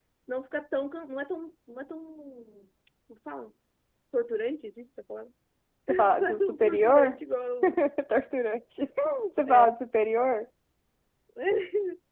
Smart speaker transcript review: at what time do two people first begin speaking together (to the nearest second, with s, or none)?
6 s